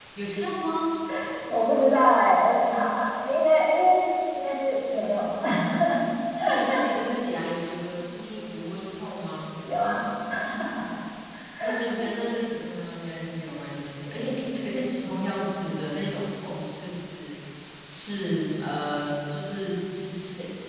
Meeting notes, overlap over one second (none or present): none